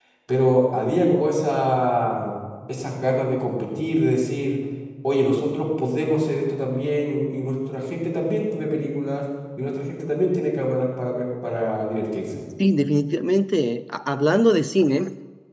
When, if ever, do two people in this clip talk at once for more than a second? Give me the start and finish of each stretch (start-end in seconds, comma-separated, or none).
none